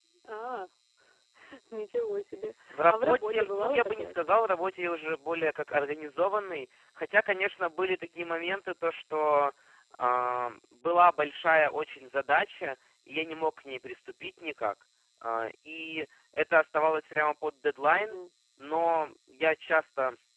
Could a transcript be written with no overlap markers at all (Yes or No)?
No